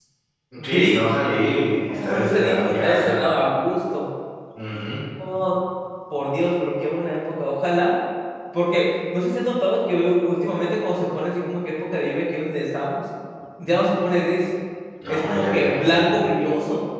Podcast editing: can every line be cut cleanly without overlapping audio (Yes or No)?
No